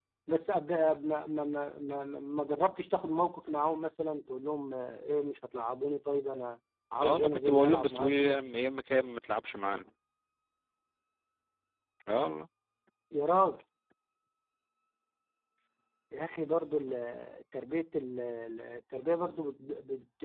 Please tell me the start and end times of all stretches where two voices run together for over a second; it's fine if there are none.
7.0-8.3

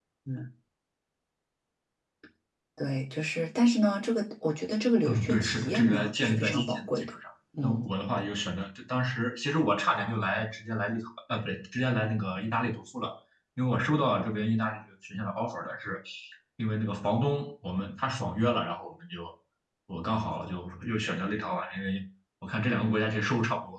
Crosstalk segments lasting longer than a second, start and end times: 5.0-7.1

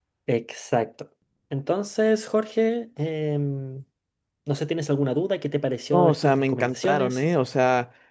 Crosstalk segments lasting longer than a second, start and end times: 5.9-7.2

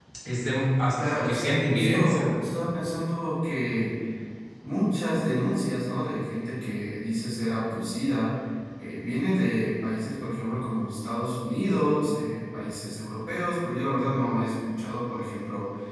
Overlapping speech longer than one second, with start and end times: 0.9-2.3

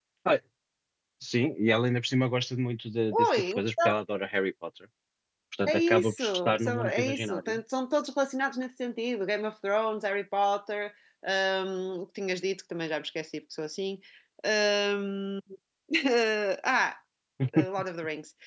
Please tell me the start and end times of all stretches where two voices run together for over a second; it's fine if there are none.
5.7-7.6

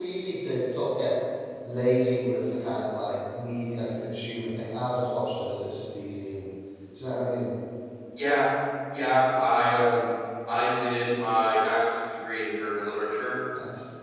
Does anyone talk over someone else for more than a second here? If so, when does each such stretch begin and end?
none

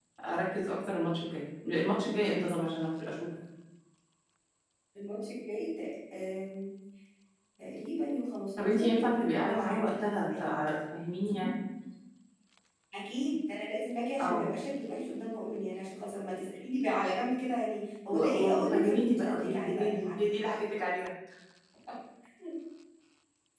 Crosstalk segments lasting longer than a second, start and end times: 8.6-10.5, 18.1-20.2

